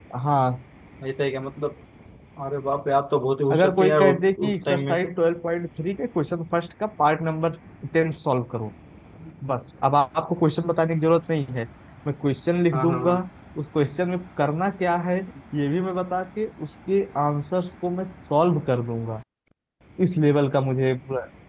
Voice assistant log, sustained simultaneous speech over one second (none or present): present